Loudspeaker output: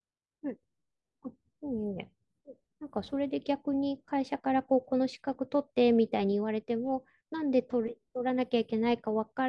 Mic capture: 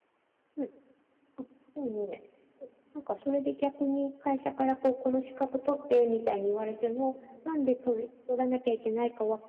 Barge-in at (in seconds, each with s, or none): none